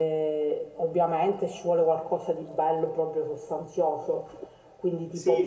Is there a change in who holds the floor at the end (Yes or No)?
Yes